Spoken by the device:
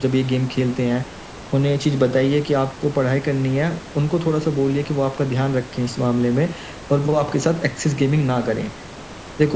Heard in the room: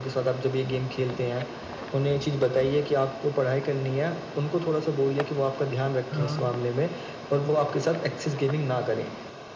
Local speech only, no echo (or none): हाँ